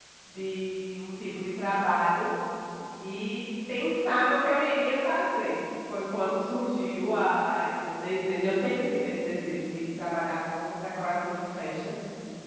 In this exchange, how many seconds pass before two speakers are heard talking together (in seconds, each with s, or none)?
none